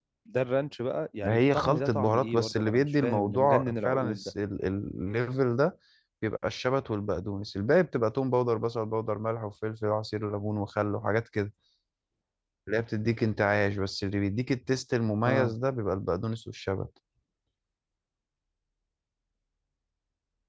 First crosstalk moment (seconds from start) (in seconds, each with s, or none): 1.2 s